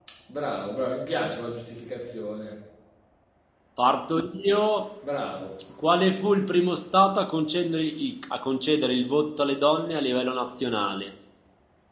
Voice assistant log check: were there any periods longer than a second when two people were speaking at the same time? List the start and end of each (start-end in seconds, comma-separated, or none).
none